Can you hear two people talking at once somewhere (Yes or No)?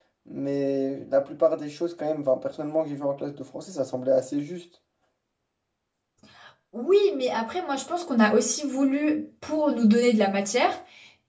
No